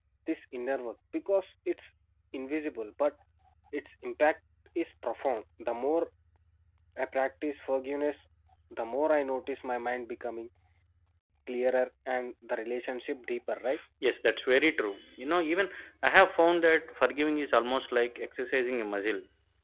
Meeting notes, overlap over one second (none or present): none